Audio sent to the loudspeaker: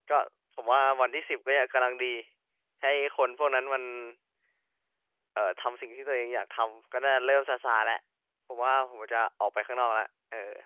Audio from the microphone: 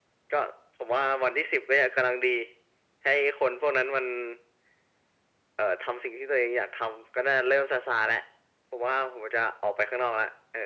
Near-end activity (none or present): none